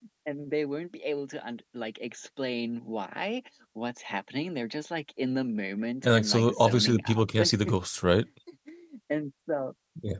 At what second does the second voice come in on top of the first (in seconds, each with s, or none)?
6.0 s